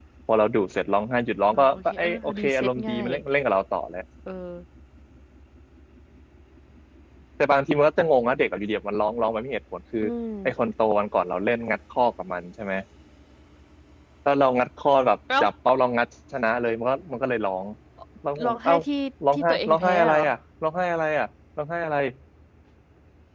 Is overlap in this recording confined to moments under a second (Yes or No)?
No